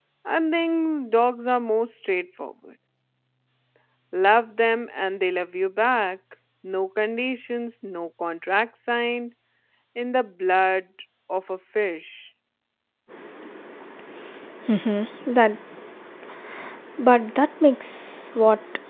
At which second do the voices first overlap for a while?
none

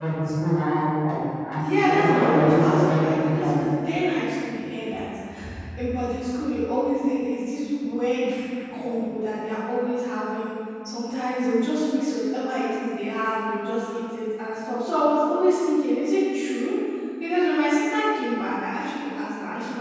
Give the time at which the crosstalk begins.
1.6 s

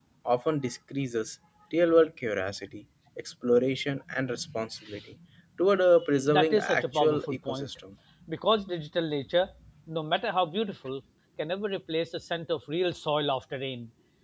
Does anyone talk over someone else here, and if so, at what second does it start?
6.3 s

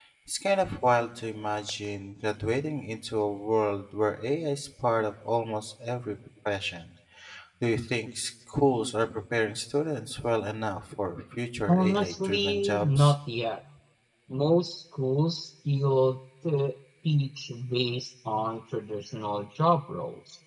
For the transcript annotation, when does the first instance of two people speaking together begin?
11.7 s

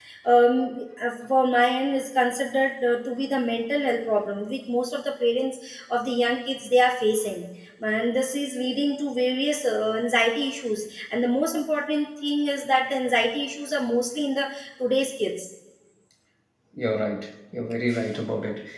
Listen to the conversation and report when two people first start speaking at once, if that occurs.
none

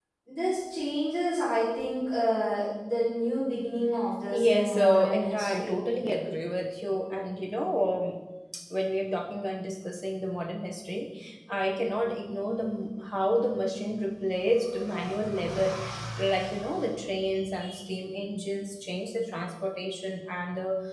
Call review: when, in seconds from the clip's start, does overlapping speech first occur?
4.3 s

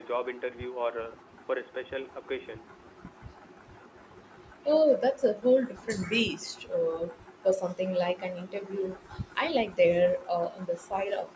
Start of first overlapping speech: none

